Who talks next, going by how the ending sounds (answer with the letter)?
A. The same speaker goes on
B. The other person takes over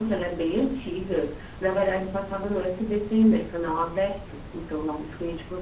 A